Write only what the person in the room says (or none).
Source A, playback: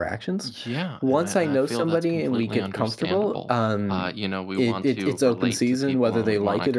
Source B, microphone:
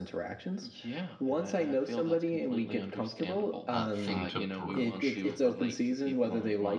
uh, thing to broach.